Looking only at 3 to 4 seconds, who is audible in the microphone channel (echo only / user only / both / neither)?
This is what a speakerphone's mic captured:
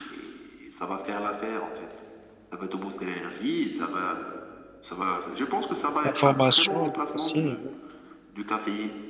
echo only